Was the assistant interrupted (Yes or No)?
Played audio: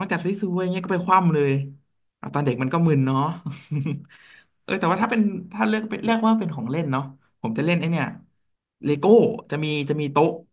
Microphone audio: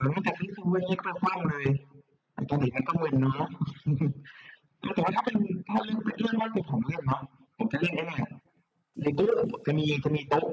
No